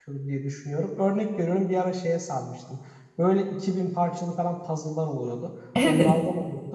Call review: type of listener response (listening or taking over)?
listening